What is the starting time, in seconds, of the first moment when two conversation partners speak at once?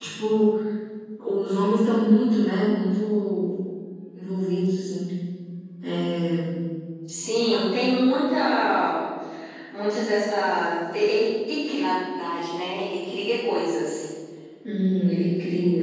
none

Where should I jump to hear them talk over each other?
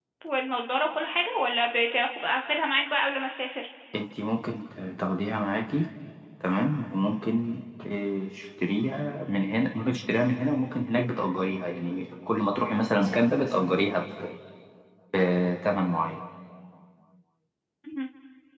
none

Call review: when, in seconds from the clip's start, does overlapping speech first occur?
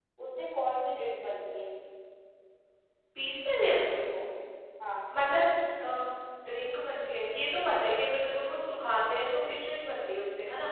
none

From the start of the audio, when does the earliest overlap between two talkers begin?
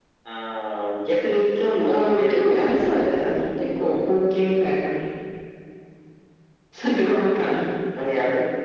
1.9 s

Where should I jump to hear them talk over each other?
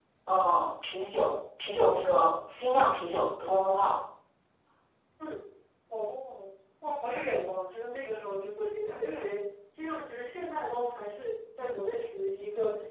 none

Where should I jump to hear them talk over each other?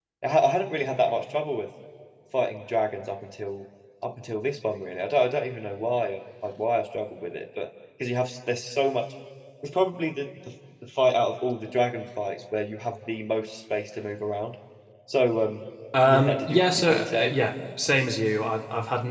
16.0 s

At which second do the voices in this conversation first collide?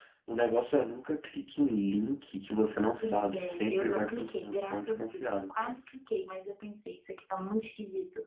3.0 s

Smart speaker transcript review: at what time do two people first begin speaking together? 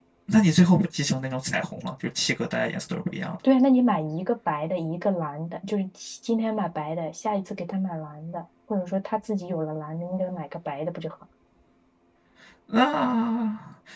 none

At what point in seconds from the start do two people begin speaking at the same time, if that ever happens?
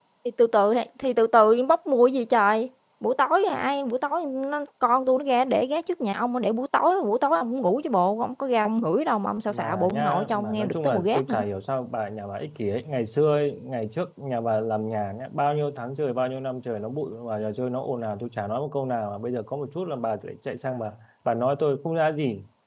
9.5 s

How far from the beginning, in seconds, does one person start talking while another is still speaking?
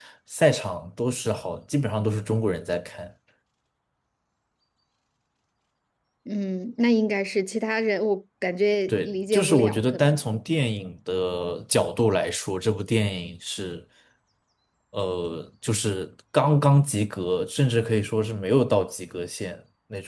8.9 s

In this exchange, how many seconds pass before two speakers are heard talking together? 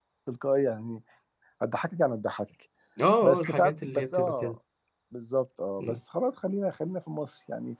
3.2 s

